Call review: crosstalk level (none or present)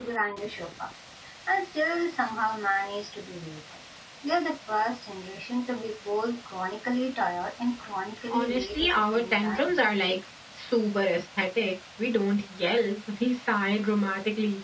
present